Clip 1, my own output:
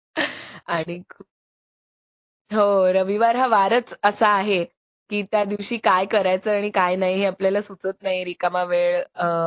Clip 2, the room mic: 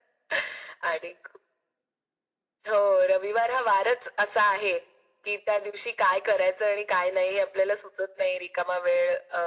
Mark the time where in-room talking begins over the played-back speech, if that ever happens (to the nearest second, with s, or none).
none